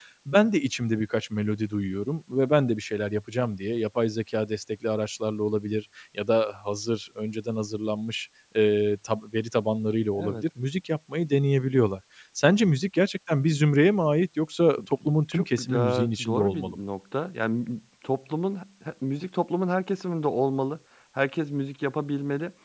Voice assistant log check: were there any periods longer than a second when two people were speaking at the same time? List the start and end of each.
15.3-16.8

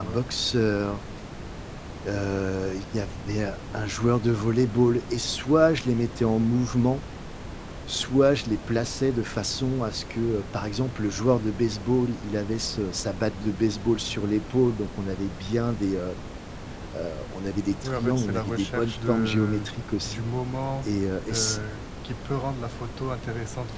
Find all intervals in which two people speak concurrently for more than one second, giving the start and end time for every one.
17.8-19.7

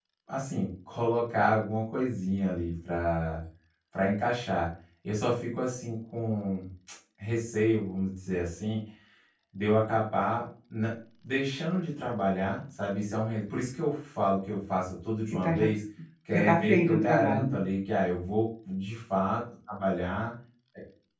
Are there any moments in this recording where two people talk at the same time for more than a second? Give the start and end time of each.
16.3-17.6

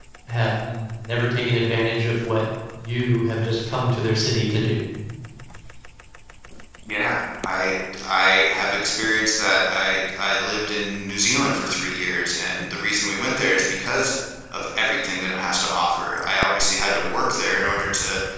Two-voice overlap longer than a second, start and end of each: none

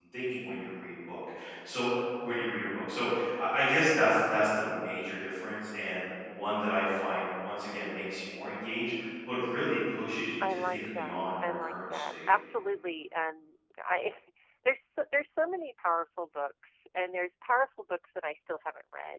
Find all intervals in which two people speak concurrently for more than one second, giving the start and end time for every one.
10.4-12.1

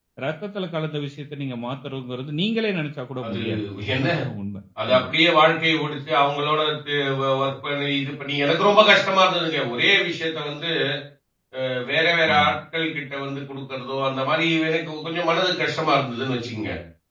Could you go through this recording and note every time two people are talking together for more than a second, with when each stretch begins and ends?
none

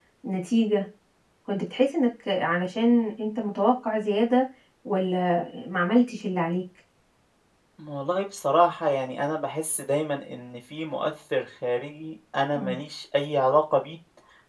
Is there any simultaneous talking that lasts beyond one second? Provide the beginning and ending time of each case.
none

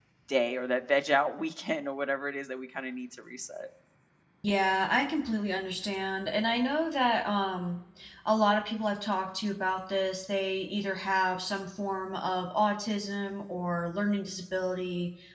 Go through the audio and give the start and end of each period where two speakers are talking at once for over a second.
none

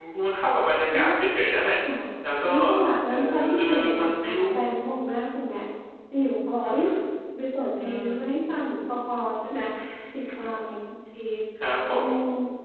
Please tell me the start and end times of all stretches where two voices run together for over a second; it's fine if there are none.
3.1-4.5

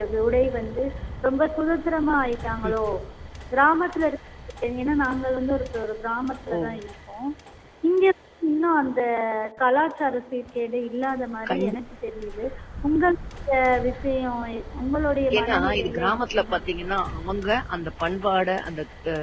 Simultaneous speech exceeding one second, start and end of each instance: 15.4-16.9

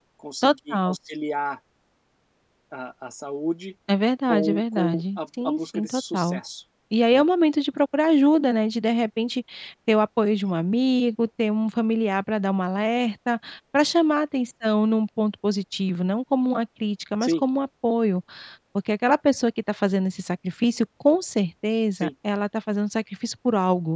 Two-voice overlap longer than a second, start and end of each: 4.3-6.4

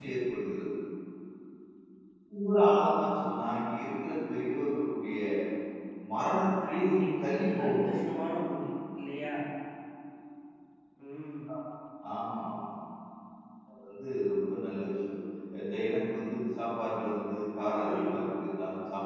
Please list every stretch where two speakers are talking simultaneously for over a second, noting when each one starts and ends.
6.7-8.2

